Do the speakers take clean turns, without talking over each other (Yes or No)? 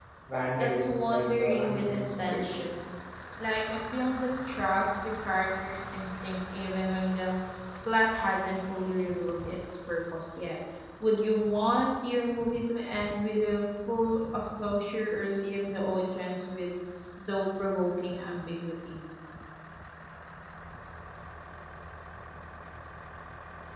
No